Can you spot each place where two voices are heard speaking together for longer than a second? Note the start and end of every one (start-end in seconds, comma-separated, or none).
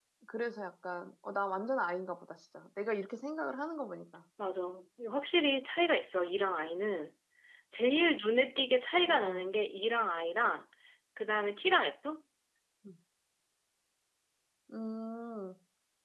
none